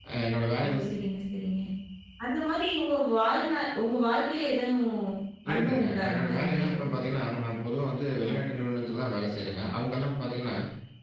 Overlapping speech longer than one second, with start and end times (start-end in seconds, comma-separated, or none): 5.5-6.9